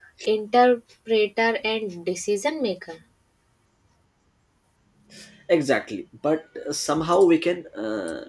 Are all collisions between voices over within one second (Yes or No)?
Yes